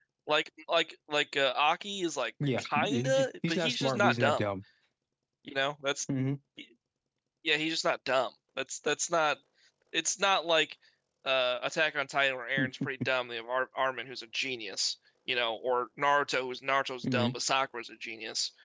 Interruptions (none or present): present